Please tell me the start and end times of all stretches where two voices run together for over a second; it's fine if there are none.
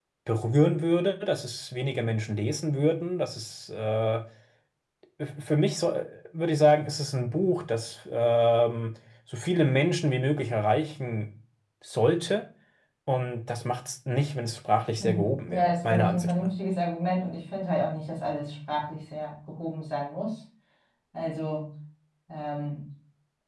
15.0-16.5

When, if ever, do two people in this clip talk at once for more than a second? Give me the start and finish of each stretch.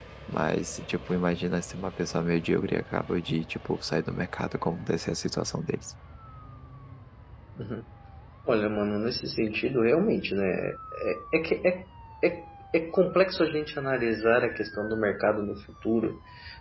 none

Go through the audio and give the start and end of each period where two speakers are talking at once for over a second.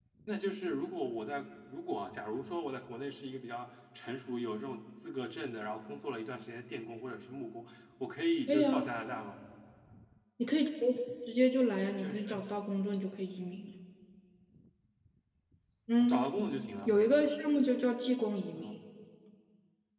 none

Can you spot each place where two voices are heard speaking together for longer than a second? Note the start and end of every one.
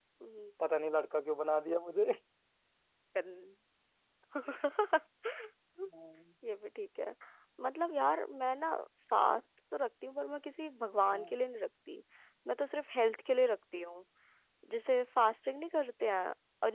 none

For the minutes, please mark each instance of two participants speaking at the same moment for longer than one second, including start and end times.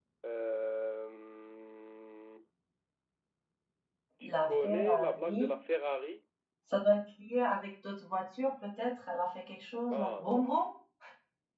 4.3-5.5

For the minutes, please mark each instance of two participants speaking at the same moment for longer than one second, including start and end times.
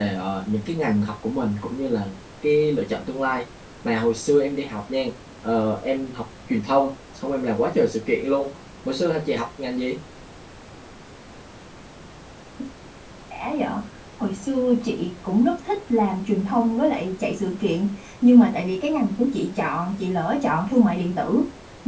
none

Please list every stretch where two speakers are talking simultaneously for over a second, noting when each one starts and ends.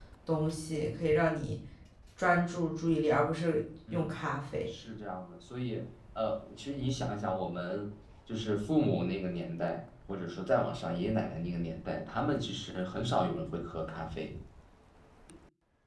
none

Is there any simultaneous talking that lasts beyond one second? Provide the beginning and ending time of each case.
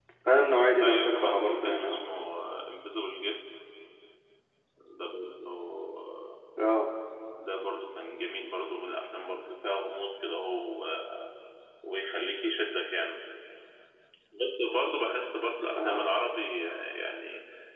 0.8-2.0

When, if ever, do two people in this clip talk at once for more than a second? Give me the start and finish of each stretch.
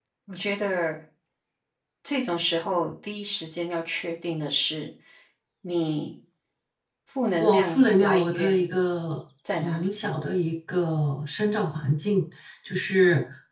7.4-8.7

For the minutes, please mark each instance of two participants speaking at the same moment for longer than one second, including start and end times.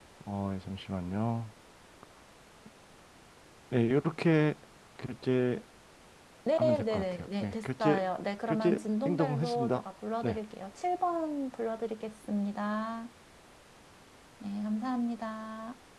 6.6-8.0, 8.5-9.8

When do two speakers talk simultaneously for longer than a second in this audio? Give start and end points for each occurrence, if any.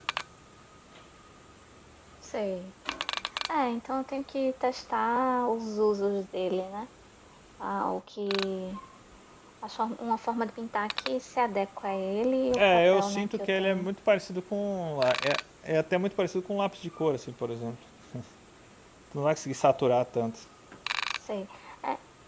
12.6-13.9

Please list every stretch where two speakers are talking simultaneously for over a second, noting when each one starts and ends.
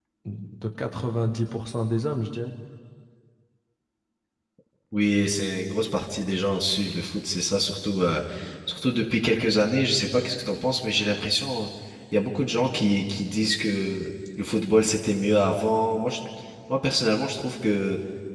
none

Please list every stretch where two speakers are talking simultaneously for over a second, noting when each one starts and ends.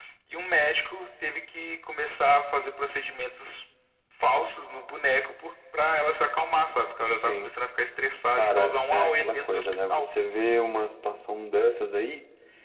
8.3-10.1

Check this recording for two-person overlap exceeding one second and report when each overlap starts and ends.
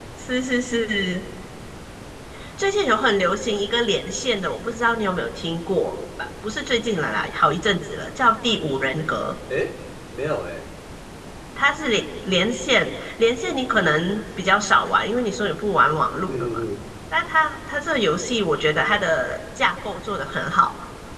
none

